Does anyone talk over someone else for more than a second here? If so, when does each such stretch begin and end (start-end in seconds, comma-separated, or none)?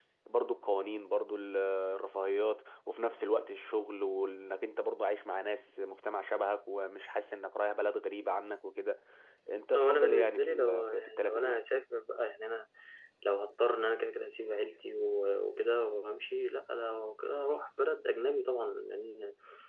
9.7-11.6